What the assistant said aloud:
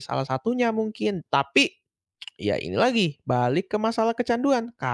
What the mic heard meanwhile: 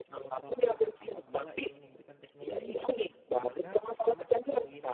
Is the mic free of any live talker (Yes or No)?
No